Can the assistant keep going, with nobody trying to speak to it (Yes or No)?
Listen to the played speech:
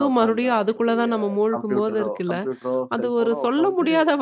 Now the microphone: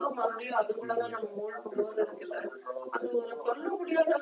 No